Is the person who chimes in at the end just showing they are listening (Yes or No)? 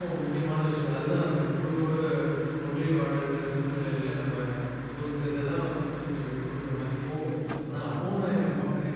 Yes